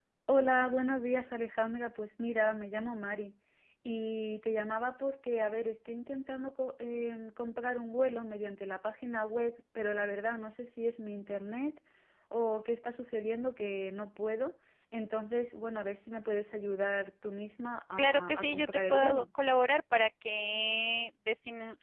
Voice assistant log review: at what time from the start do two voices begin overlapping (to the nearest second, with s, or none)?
18 s